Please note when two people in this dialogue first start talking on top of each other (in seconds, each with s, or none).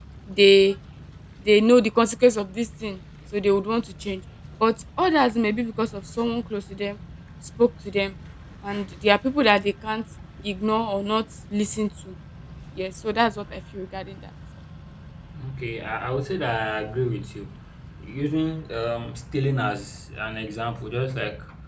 none